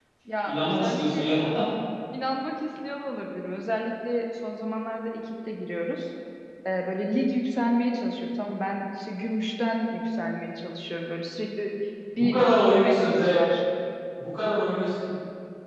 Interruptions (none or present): present